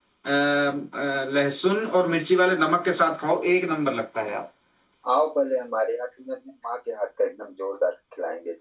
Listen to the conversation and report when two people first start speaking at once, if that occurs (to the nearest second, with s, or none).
none